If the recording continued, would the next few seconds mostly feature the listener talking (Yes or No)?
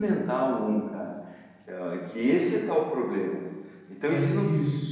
No